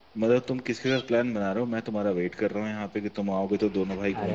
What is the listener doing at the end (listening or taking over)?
taking over